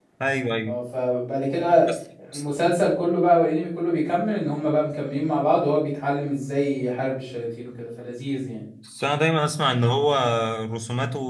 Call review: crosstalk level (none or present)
none